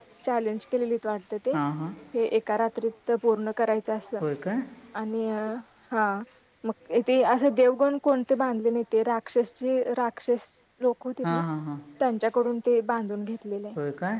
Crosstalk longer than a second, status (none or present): none